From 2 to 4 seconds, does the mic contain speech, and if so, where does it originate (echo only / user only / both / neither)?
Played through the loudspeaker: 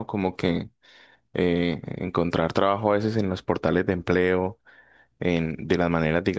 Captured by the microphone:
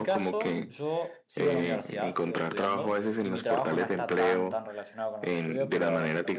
both